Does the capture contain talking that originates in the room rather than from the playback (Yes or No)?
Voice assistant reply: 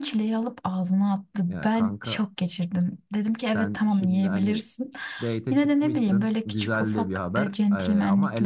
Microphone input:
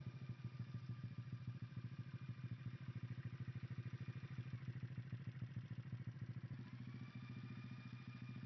No